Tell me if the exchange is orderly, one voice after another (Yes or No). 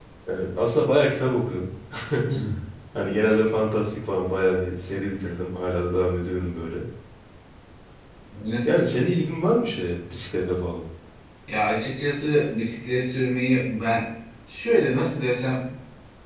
Yes